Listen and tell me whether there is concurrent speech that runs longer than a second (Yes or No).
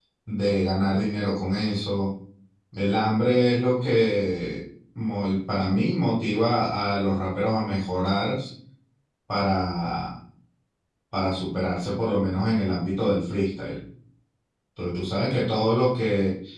No